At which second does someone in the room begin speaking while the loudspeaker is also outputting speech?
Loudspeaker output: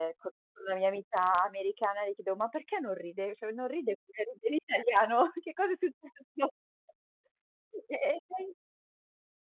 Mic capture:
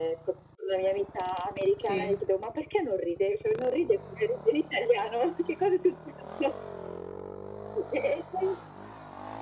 2 s

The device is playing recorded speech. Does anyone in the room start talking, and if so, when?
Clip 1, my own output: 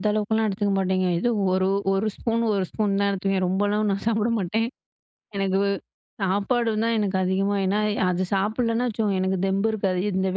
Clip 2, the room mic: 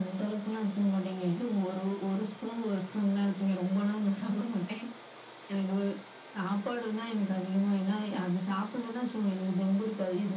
none

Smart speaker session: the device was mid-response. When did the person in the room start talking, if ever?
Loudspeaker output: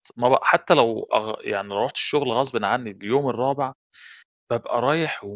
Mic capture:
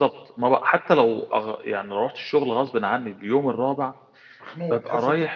4 s

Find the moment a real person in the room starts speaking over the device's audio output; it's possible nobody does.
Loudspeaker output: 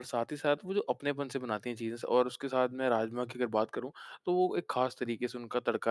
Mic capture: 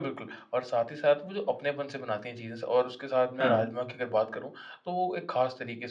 3 s

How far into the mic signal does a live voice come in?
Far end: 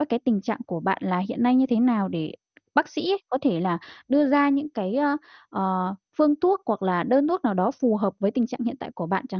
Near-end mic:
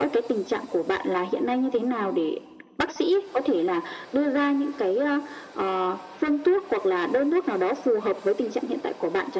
none

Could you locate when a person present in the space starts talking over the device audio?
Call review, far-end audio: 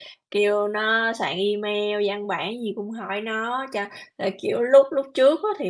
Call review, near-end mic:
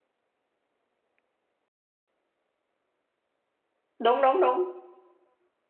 4 s

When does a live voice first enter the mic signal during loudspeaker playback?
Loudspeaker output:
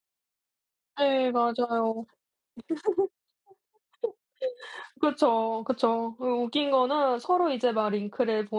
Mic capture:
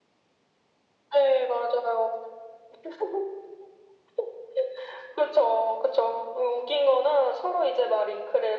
none

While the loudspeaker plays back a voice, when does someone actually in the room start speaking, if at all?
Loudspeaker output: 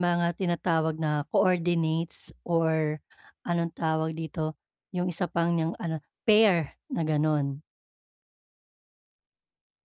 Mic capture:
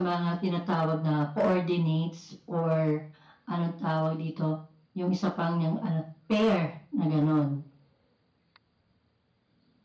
none

